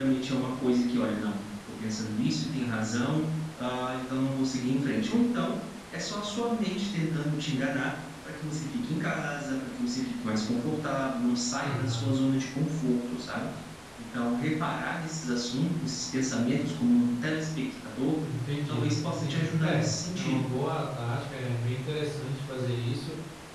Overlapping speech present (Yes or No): Yes